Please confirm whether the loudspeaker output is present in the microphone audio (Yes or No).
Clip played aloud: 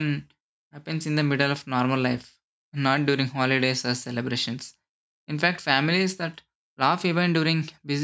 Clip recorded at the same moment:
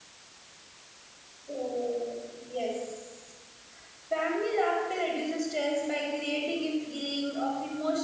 No